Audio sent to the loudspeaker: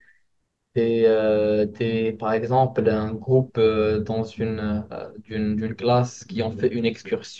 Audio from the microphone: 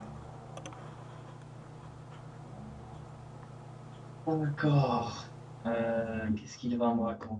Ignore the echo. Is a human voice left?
Yes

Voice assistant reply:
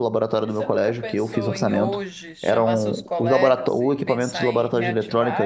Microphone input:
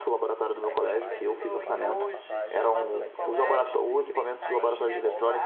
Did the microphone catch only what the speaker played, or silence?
No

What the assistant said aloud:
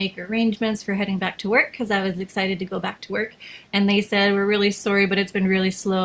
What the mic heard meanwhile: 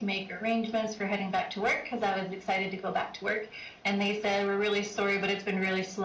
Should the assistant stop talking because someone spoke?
No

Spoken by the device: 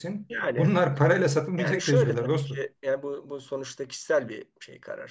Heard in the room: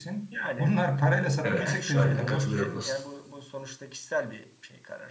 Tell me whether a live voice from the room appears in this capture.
Yes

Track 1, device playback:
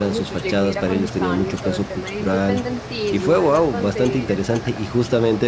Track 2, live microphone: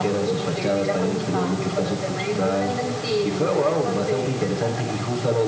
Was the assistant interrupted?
No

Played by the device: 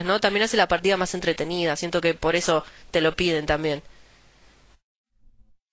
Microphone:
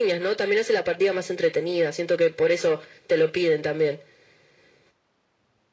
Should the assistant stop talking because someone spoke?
No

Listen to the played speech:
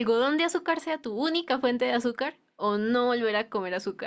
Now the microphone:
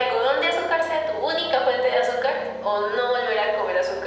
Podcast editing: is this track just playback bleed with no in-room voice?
Yes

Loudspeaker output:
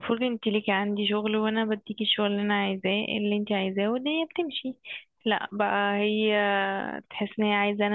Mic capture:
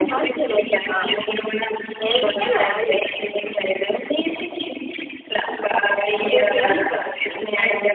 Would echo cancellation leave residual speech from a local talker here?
Yes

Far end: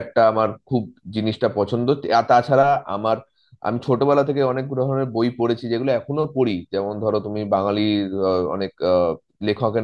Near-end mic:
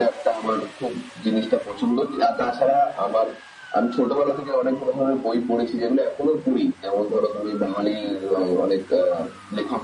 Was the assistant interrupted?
No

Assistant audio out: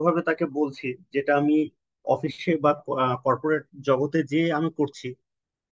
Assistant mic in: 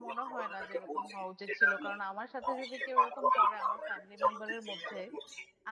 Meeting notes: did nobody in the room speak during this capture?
No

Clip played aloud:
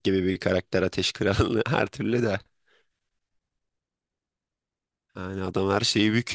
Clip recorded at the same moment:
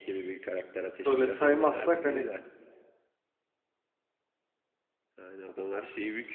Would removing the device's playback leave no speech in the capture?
No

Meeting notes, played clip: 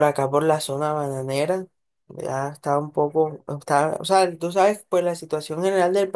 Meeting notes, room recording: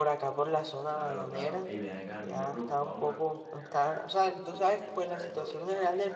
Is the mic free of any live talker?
No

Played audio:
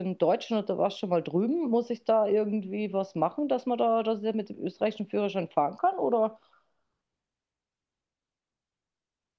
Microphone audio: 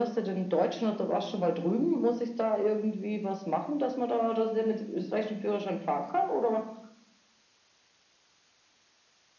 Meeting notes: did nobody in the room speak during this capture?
Yes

